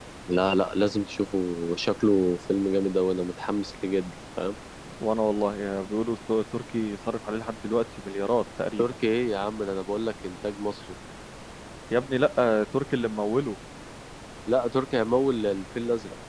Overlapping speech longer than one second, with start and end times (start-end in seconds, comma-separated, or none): none